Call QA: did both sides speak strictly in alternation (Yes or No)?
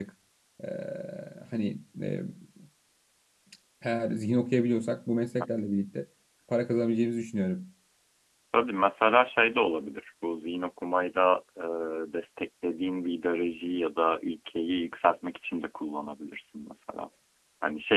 Yes